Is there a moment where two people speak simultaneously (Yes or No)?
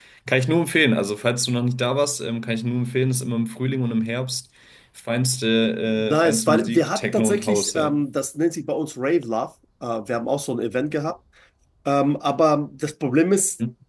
Yes